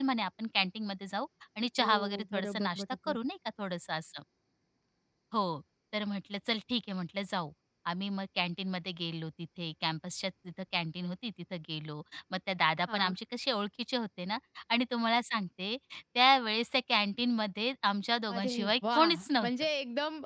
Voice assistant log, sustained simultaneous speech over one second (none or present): present